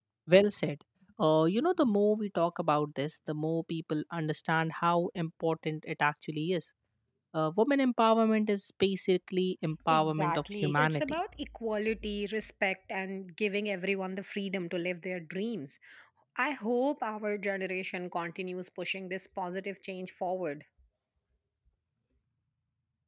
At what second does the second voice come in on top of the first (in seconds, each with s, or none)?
9.7 s